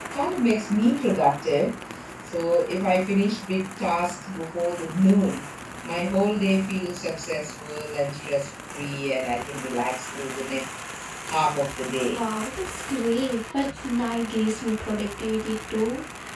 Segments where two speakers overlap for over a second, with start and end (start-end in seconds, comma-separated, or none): none